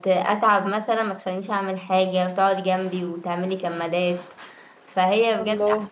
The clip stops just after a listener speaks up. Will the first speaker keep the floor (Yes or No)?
Yes